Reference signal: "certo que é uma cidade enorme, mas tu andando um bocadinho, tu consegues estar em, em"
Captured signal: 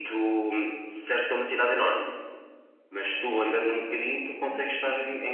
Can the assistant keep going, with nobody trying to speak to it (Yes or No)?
No